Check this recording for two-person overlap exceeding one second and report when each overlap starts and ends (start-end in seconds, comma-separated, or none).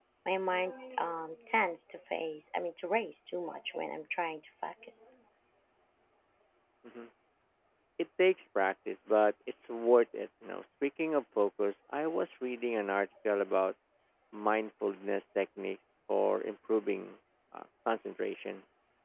none